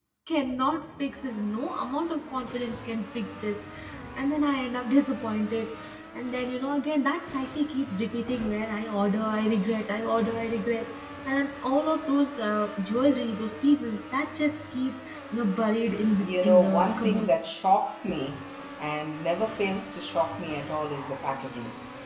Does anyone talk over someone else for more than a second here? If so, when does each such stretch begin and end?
15.9-17.3

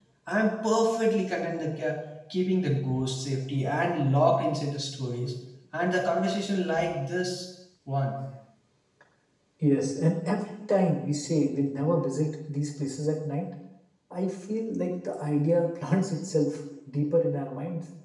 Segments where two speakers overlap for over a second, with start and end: none

